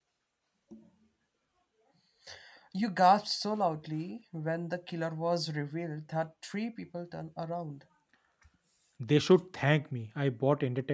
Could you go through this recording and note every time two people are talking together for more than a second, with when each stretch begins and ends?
none

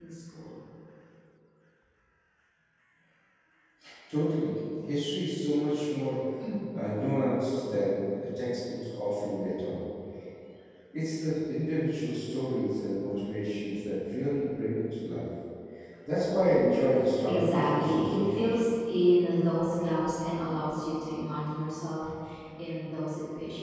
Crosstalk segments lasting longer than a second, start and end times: 17.2-18.6

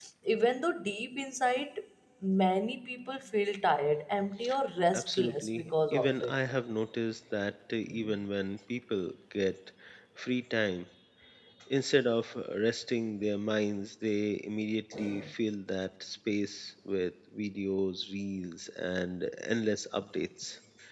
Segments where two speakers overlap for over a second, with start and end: 4.9-6.3

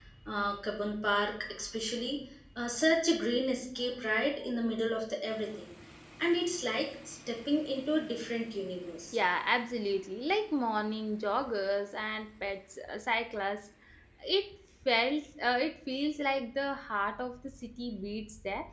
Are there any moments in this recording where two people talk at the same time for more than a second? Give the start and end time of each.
none

